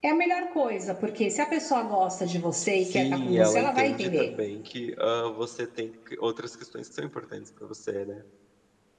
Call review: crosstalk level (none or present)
present